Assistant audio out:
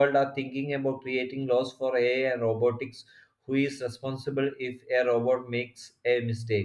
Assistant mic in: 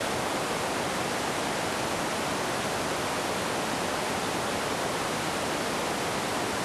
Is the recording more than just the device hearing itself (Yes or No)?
No